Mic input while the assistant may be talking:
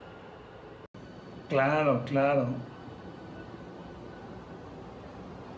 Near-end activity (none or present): present